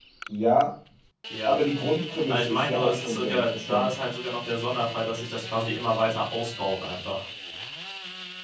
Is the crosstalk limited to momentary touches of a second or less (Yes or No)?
No